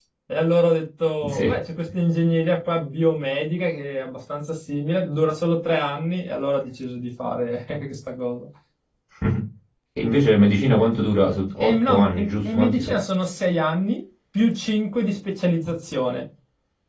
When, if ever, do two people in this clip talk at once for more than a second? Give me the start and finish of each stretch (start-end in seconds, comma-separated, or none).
11.6-12.9